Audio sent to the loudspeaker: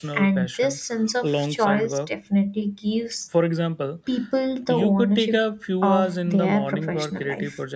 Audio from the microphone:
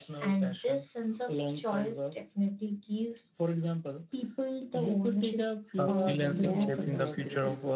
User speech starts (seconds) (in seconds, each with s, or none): 5.8 s